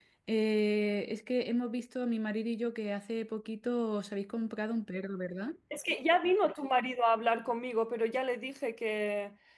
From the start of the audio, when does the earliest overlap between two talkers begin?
none

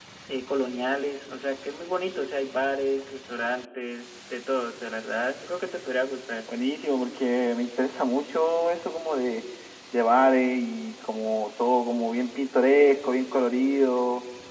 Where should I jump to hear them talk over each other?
none

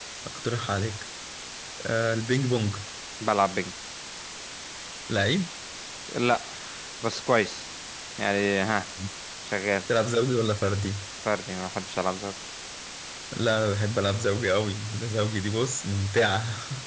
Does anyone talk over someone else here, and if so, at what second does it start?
none

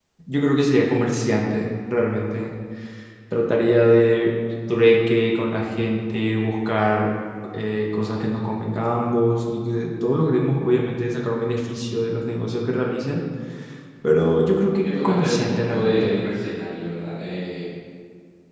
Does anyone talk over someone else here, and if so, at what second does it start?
14.8 s

